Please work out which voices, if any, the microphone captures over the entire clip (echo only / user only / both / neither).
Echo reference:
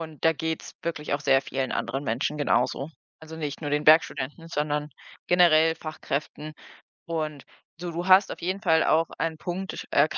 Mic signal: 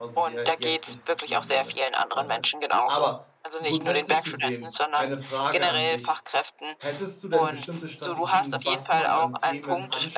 both